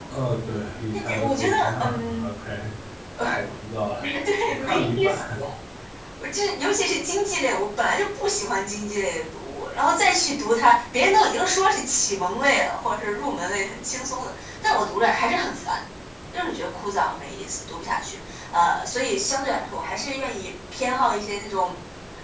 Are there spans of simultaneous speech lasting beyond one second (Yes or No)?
Yes